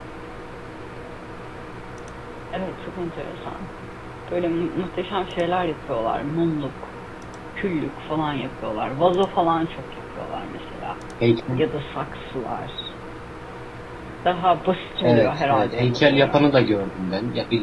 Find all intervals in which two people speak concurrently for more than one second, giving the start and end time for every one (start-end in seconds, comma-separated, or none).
15.0-16.4